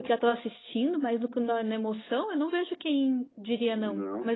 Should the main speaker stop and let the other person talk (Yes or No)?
Yes